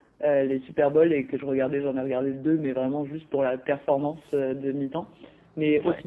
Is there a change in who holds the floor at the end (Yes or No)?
No